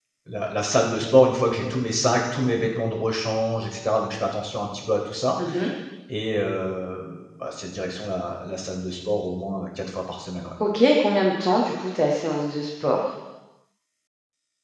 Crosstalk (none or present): none